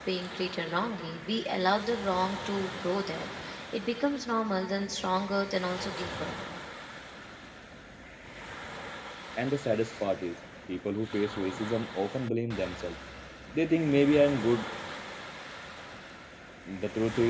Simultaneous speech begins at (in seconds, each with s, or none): none